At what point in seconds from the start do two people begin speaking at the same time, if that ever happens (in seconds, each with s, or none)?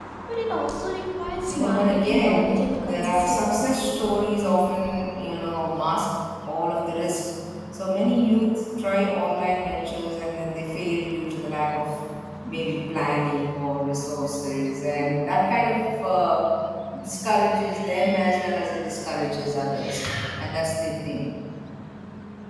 1.5 s